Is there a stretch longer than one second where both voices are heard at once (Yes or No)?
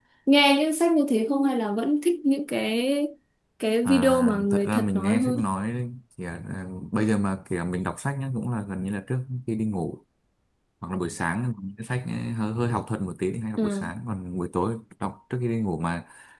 Yes